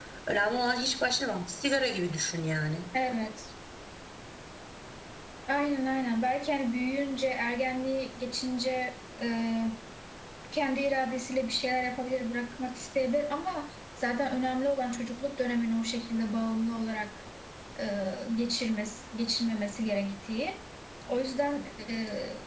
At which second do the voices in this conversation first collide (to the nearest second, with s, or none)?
none